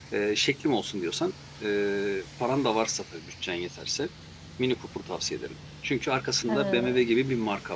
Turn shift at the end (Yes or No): No